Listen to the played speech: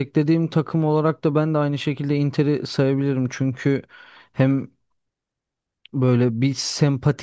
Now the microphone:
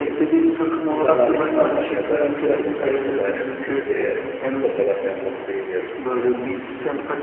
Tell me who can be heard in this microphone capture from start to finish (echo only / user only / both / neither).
both